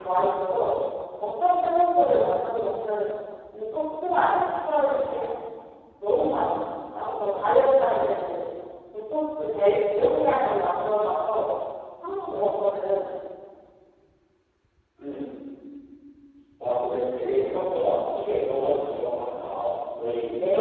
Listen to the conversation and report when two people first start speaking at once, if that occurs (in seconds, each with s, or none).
none